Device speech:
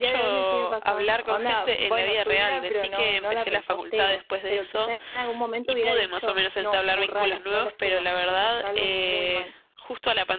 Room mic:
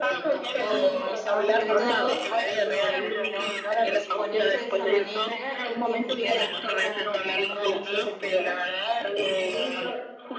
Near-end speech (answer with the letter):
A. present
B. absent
A